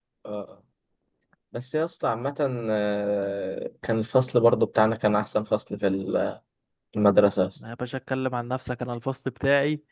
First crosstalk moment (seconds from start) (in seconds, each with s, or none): none